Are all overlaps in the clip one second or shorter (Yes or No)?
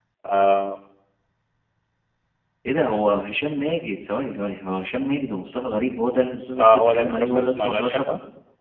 No